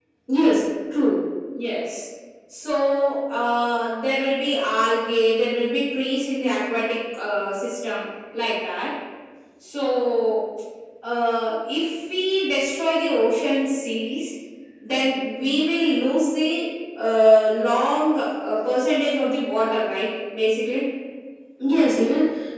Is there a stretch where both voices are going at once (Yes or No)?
No